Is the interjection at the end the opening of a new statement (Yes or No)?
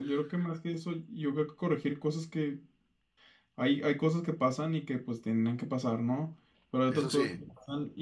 No